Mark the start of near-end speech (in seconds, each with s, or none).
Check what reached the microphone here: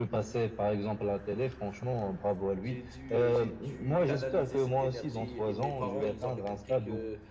2.6 s